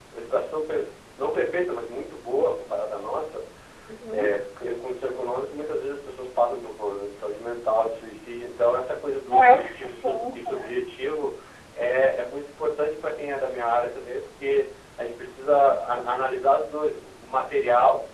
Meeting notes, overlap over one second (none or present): present